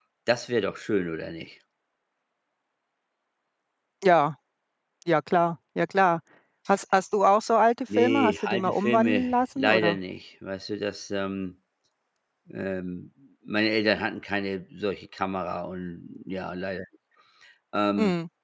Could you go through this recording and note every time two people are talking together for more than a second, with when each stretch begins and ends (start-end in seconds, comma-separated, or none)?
8.0-10.0